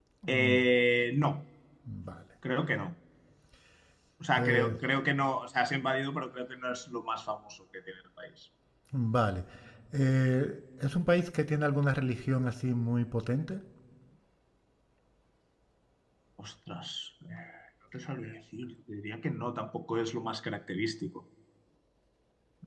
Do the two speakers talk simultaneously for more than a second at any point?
No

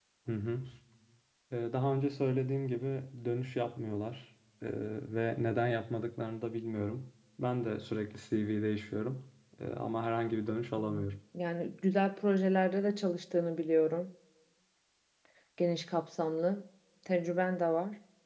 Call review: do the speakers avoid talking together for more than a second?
Yes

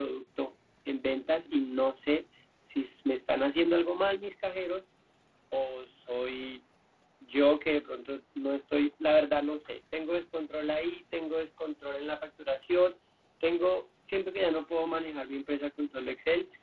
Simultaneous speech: No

